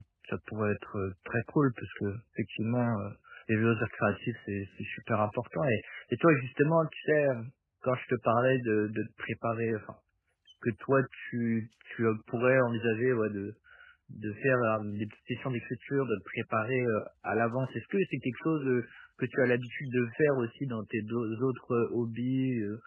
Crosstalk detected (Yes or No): No